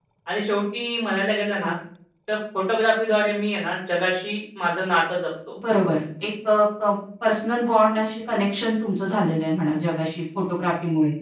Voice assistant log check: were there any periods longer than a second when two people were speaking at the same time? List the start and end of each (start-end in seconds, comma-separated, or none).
none